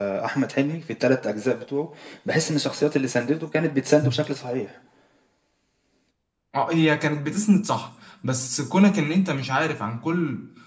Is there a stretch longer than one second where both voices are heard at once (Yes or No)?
No